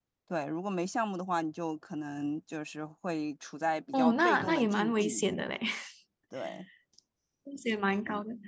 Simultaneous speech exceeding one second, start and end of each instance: 3.9-5.2

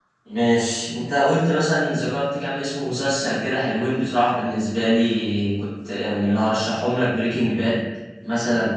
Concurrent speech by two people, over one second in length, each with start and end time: none

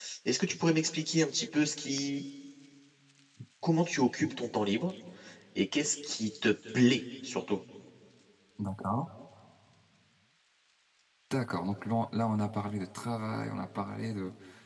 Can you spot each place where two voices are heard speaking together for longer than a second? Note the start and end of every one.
none

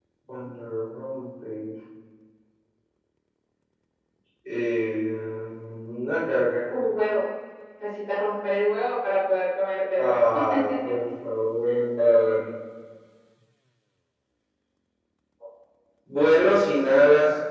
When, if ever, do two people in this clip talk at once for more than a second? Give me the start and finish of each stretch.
none

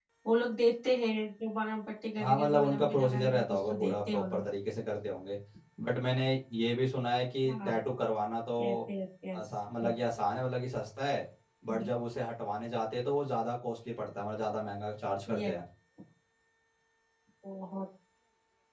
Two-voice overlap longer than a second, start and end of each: 2.2-4.4

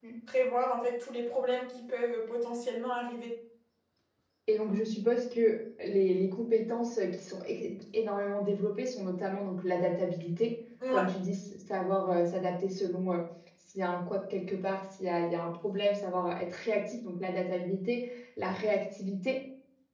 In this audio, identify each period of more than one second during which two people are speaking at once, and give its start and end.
none

